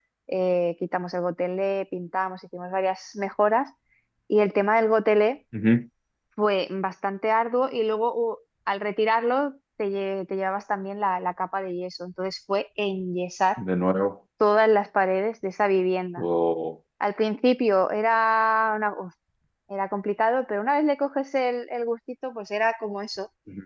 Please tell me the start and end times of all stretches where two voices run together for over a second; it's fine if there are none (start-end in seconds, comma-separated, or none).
none